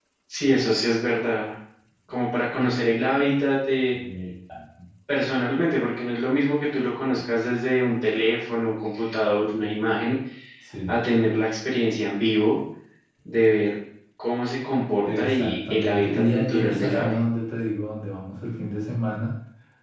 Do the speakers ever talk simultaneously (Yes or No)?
Yes